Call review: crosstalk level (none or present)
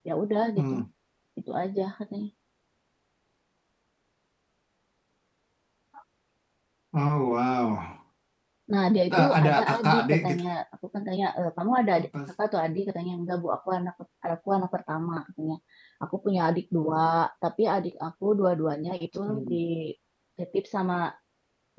present